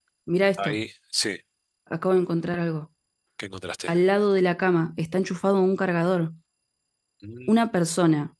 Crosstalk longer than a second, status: none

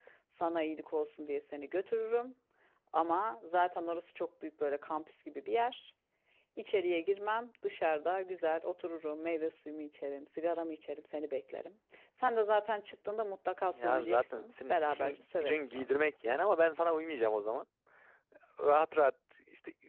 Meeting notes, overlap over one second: present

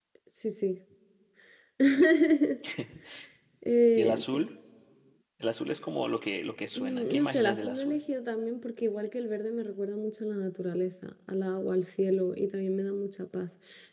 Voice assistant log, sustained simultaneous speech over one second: present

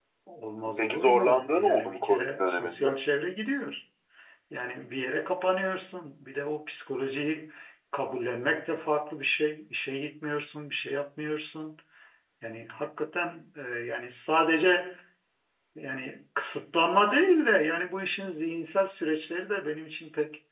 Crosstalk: present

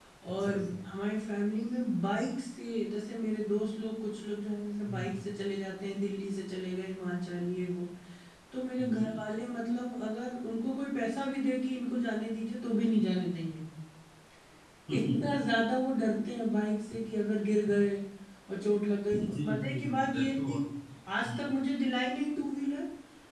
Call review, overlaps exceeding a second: present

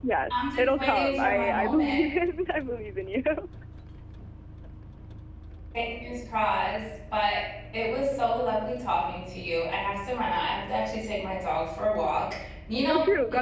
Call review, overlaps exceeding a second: present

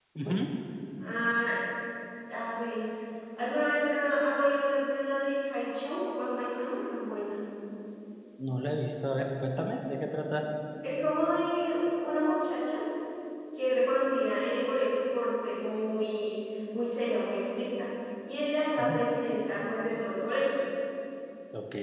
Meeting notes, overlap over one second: none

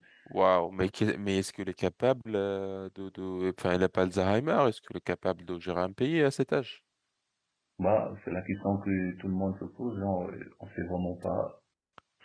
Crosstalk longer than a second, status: none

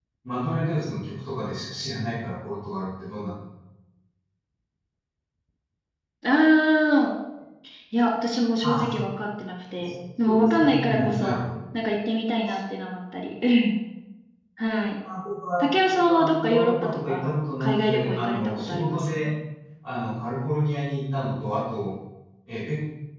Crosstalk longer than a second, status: present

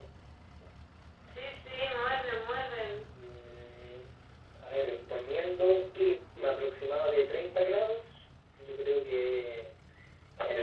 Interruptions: none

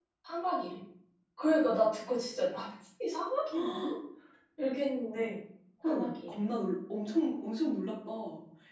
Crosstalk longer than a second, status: none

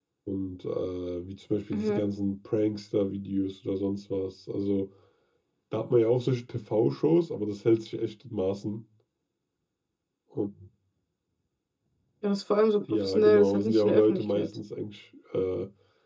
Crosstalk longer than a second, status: present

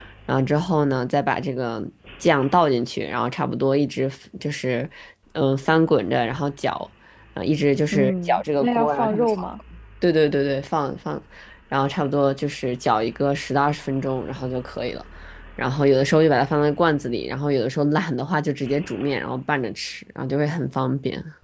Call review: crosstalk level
present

